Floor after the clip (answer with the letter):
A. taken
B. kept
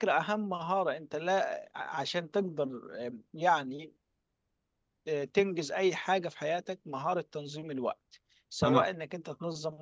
B